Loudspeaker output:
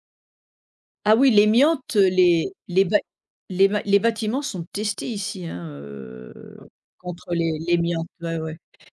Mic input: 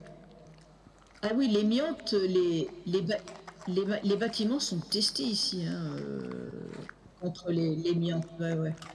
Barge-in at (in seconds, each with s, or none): none